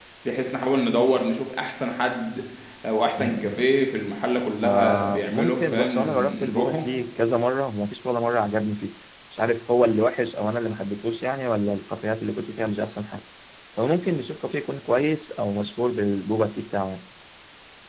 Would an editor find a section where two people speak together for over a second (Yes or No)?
Yes